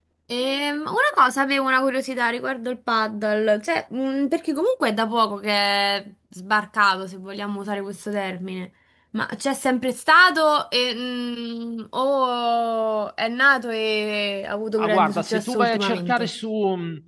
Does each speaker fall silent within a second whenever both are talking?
No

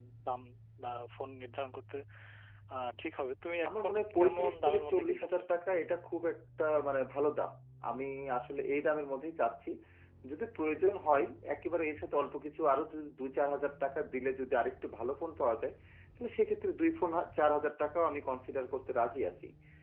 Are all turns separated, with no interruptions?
No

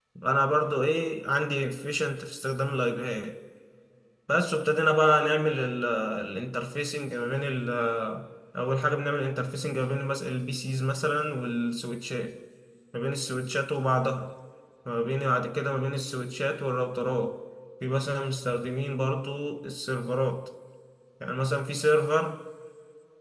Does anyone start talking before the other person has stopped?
No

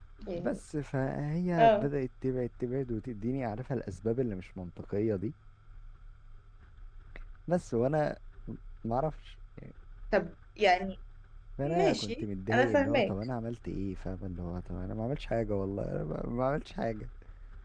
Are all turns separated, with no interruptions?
No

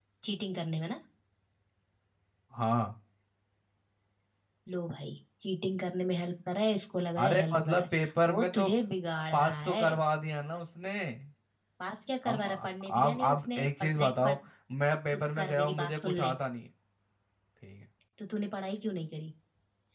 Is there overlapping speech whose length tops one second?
Yes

